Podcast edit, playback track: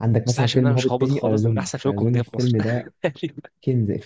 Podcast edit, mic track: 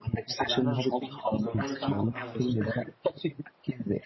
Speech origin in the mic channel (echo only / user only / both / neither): both